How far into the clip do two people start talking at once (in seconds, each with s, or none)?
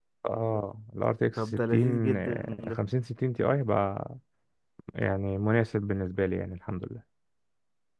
1.4 s